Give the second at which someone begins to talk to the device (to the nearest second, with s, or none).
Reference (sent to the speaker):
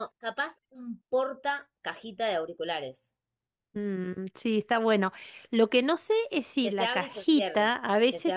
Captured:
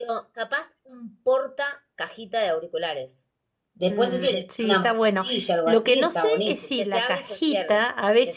4 s